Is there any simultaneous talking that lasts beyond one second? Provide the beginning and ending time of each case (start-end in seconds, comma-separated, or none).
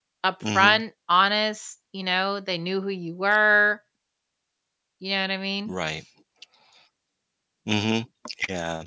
none